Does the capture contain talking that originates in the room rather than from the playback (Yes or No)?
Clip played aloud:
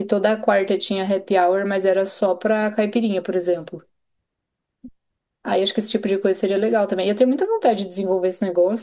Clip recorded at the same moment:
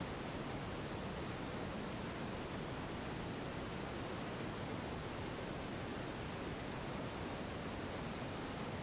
No